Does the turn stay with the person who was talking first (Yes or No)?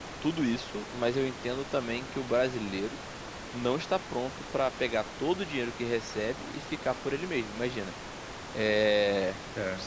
Yes